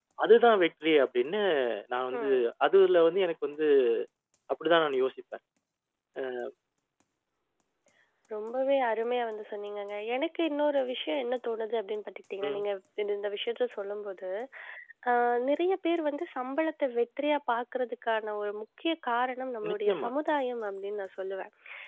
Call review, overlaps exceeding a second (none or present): none